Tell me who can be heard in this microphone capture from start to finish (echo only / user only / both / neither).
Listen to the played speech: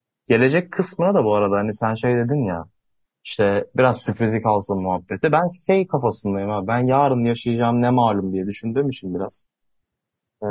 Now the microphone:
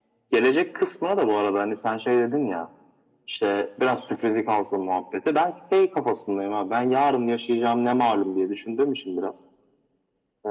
echo only